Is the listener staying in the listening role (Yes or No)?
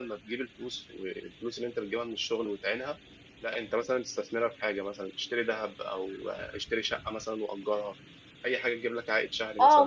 No